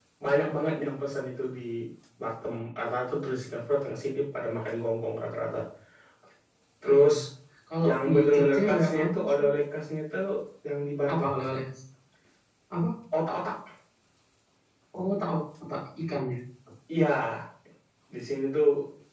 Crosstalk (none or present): present